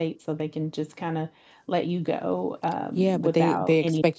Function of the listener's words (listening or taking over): taking over